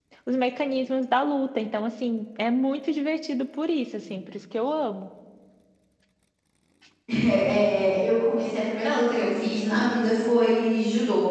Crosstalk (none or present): none